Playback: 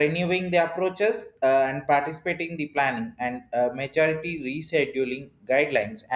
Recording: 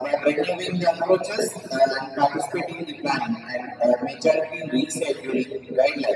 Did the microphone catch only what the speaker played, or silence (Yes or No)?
Yes